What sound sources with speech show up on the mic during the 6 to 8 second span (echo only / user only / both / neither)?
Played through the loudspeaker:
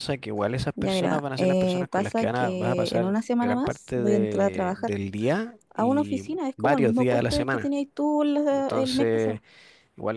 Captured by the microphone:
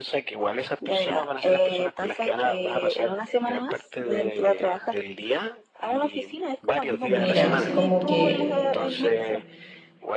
both